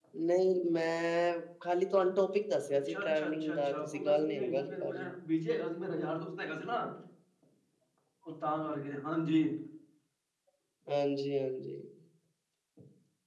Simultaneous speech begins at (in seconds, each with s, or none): 2.9 s